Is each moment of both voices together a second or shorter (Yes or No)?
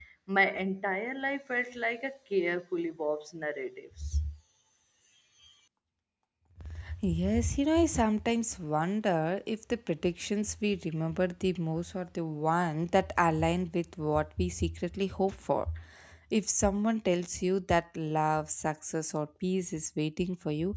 Yes